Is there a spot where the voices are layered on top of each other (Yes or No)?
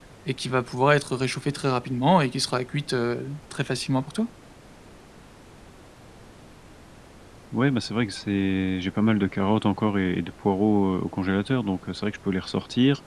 No